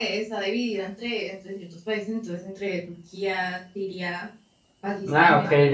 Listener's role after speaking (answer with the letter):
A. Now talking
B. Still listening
A